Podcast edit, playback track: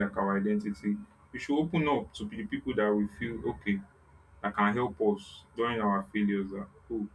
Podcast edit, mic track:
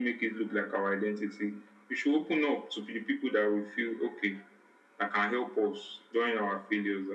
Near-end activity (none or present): none